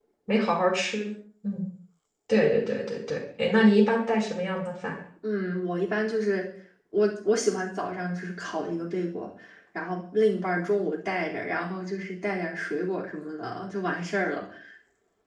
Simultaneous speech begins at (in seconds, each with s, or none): none